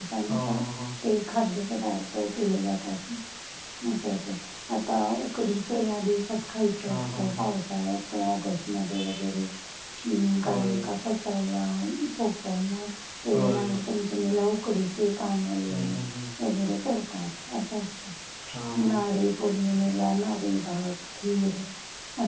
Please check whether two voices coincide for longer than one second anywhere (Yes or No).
No